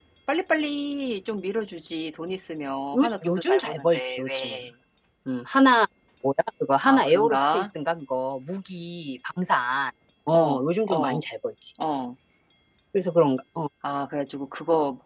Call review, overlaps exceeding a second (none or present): present